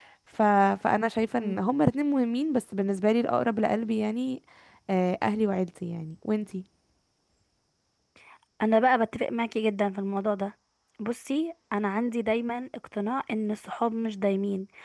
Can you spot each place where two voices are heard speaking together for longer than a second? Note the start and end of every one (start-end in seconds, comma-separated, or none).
none